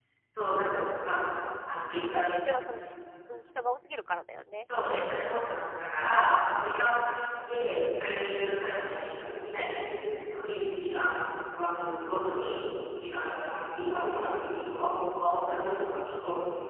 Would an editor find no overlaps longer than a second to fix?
Yes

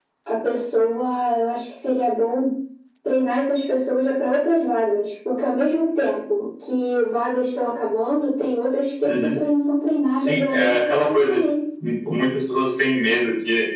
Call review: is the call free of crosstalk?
No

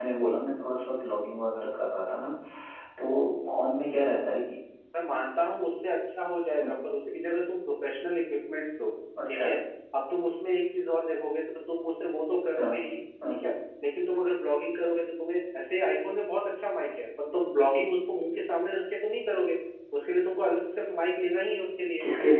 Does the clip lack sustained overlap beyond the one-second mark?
Yes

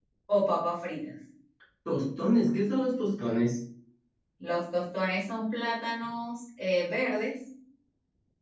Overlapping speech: No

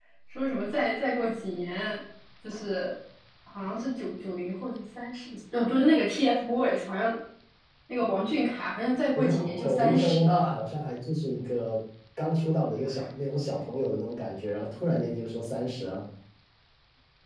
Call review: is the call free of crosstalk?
No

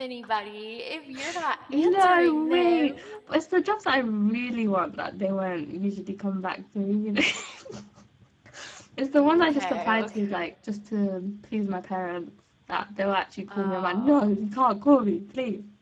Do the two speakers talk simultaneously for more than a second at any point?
Yes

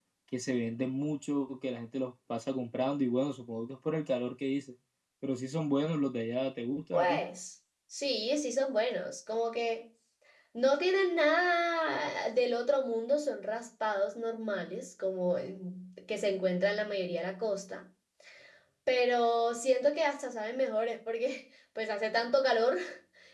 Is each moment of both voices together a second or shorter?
Yes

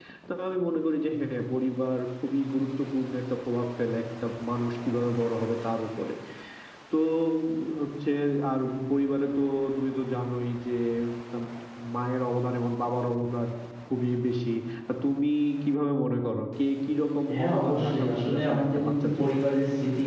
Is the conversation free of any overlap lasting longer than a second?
No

